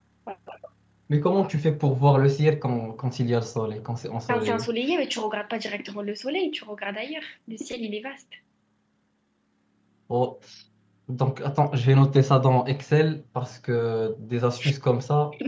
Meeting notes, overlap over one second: none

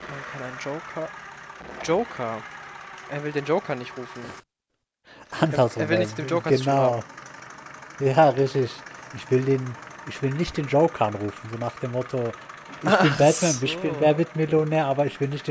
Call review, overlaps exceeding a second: present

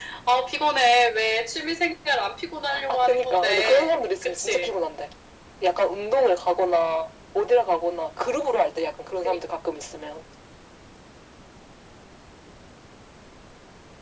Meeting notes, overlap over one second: present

